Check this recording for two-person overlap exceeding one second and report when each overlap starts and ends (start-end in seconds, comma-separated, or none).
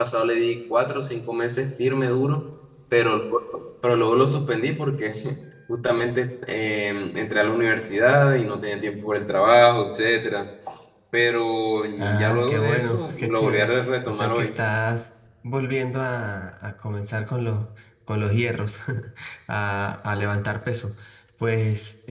12.0-14.5